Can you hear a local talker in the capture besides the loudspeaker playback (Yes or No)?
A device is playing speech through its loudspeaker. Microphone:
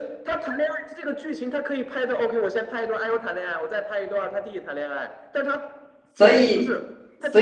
Yes